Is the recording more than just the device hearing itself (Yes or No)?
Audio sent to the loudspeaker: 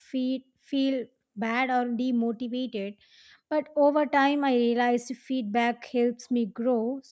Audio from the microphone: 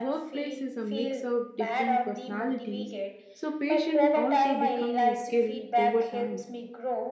Yes